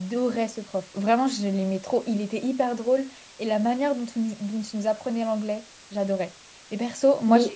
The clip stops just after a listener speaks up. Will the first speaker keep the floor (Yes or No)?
Yes